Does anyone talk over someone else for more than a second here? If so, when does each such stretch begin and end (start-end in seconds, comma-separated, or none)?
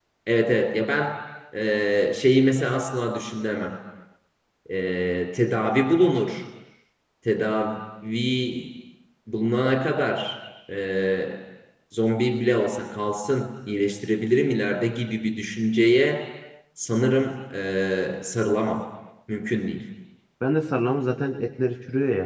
none